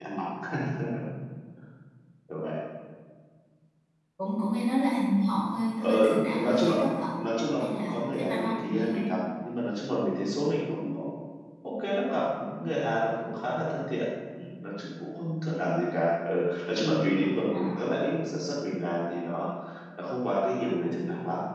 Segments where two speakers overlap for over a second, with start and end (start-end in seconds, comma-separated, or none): 7.6-9.1